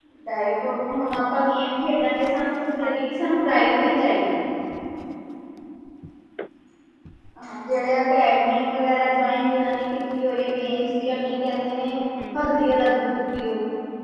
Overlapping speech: Yes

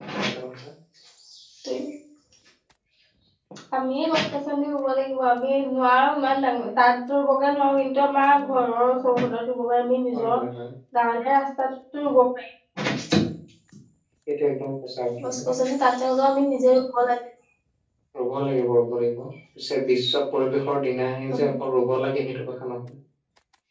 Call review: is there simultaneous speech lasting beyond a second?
No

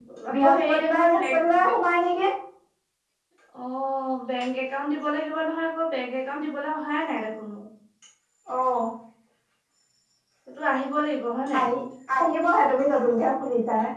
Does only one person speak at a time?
No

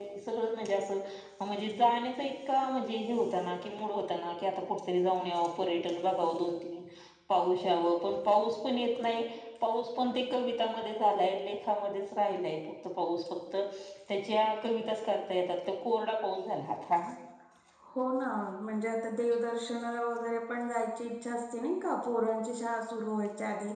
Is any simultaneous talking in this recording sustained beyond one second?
No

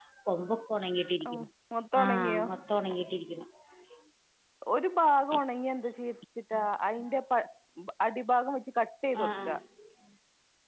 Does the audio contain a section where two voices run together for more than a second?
No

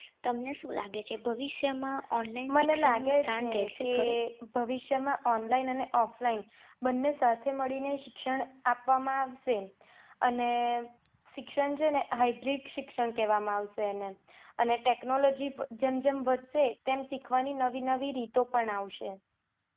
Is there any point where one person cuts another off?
Yes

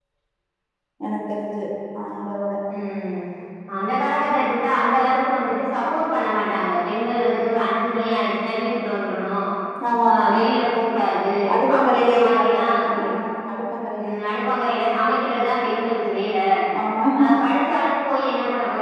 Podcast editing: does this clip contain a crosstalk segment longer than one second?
Yes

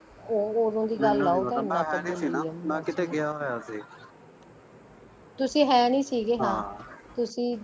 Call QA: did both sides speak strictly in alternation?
No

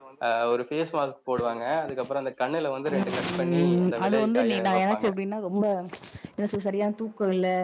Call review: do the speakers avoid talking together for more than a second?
No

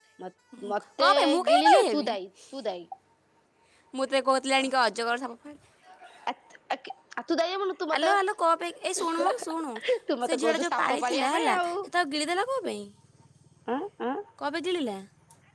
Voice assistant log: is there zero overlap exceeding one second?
No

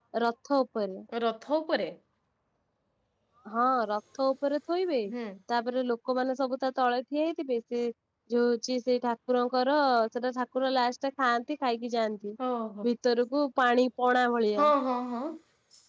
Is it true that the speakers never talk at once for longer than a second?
Yes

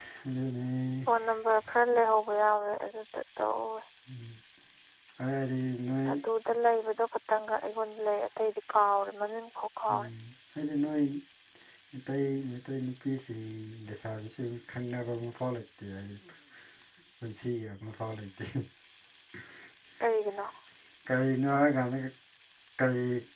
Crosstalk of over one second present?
No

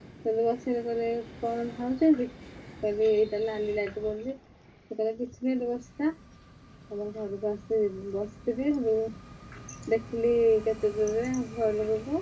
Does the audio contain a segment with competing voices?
No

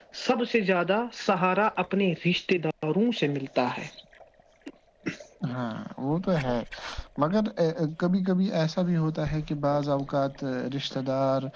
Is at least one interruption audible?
No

